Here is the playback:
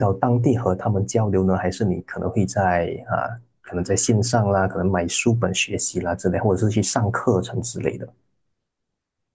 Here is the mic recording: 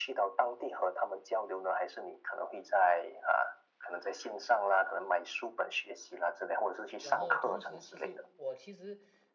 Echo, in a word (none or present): present